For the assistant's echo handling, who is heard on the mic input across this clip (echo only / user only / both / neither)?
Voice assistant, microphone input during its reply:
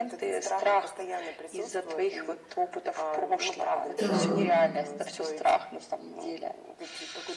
both